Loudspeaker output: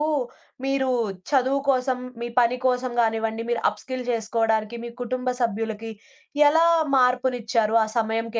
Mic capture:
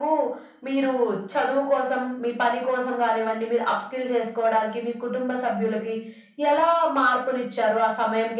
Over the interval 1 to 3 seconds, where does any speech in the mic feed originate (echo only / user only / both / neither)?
echo only